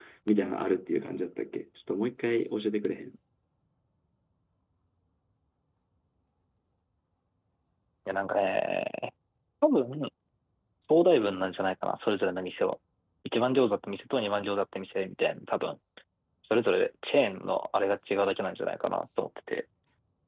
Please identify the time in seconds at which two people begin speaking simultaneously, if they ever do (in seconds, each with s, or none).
none